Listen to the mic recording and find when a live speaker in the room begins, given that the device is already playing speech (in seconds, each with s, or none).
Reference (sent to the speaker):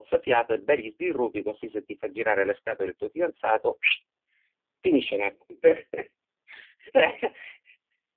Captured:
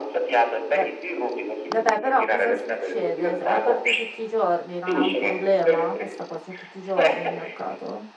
0.7 s